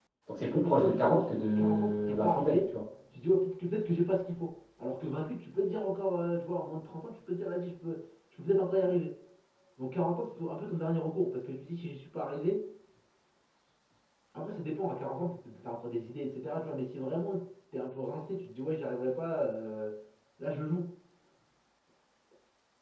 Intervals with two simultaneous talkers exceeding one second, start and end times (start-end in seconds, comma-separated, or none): 0.5-2.8